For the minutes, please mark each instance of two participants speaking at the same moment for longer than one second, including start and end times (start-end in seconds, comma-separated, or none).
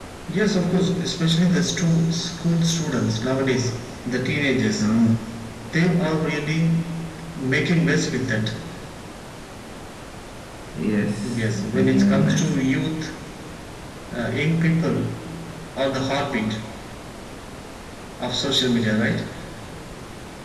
11.3-12.5